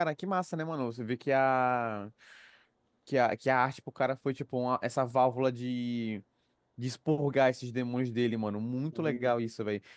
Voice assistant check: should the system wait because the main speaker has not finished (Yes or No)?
Yes